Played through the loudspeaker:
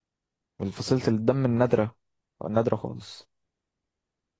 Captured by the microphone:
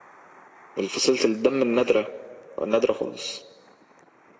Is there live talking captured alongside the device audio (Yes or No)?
No